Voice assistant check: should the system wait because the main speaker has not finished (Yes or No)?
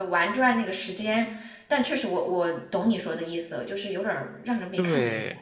No